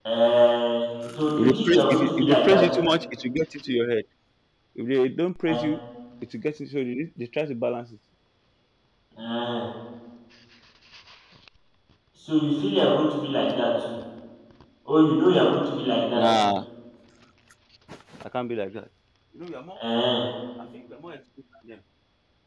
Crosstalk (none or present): present